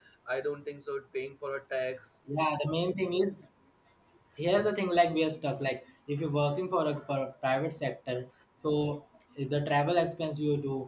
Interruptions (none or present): none